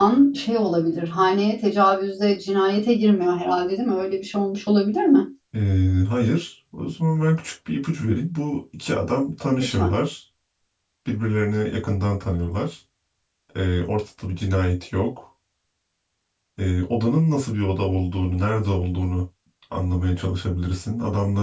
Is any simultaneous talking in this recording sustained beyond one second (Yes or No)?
No